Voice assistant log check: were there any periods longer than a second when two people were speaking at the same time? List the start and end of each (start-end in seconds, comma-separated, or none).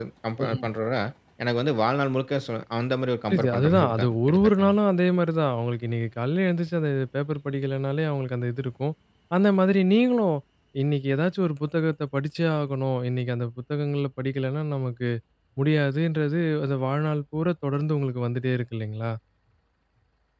3.3-4.7